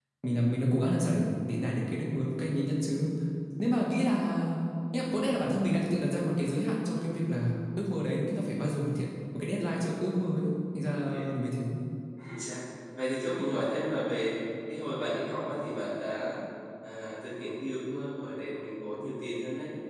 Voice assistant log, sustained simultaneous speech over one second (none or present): none